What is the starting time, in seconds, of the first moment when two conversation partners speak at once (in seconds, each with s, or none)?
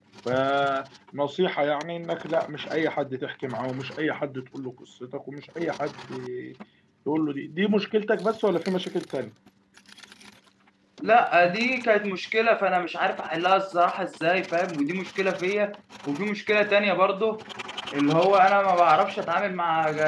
none